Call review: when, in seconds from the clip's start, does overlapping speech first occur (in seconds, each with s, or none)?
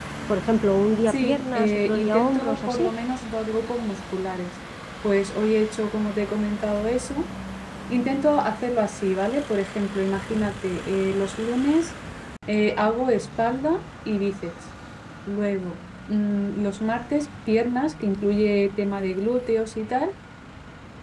1.1 s